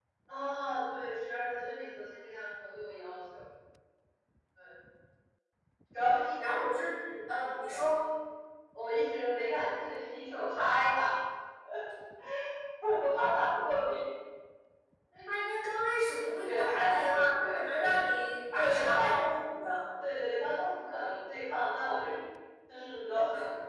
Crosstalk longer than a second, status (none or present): present